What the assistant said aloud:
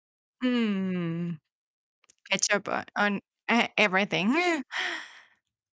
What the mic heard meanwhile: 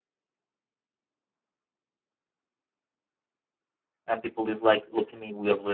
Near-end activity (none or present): present